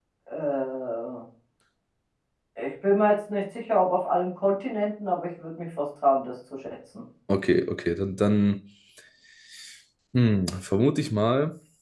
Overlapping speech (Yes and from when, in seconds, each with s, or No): No